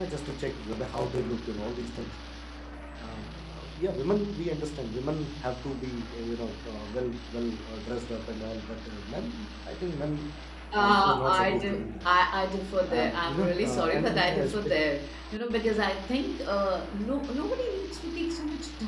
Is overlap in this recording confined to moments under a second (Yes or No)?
No